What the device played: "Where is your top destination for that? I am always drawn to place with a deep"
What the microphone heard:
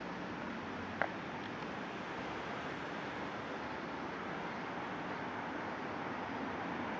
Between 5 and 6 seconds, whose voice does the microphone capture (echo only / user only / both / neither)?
neither